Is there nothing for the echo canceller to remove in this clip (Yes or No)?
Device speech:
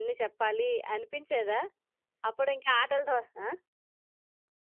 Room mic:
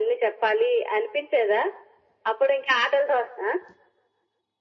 No